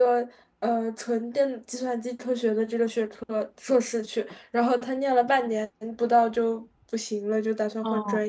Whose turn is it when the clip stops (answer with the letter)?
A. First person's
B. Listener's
A